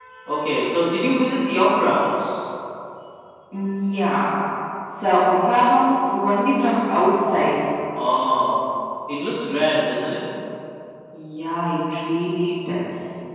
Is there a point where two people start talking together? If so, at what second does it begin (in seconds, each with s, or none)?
none